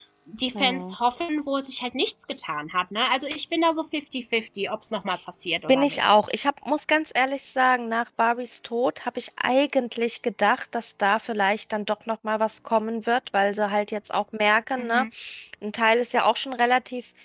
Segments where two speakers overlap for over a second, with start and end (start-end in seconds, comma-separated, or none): none